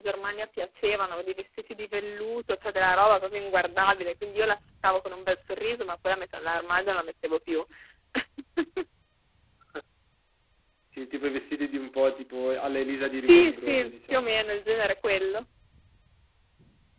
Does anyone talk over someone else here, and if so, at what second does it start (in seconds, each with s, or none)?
13.1 s